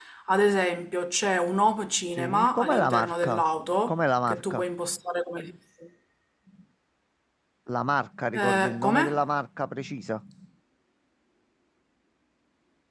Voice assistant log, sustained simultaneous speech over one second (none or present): present